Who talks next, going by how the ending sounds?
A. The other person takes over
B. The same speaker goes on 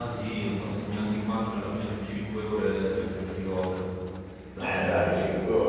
A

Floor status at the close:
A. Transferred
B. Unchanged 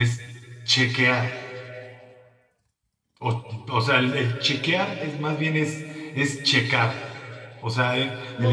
B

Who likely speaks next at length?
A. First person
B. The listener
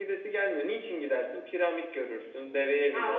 B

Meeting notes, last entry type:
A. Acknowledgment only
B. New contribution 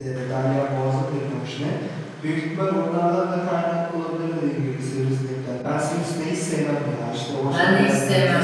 B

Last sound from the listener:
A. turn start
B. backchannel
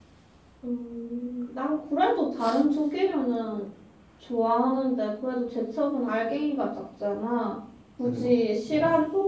B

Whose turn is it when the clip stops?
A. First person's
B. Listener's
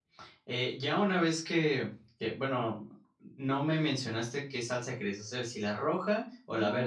B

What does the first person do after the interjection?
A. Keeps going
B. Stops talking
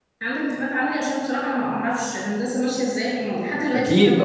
B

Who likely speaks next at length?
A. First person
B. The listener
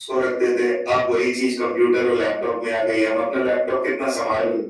A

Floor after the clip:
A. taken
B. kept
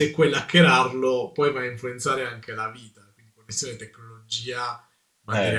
A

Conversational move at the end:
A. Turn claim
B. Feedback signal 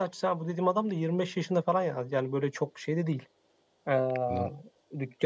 B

